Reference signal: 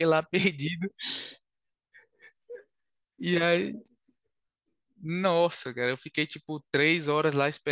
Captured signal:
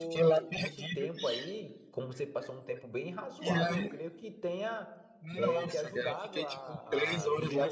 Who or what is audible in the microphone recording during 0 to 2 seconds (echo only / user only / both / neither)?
both